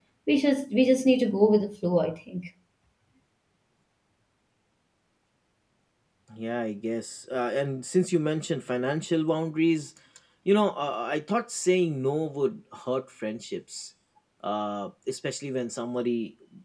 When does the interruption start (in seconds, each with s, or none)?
none